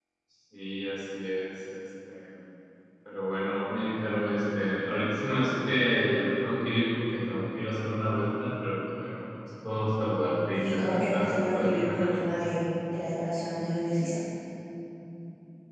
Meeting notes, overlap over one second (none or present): present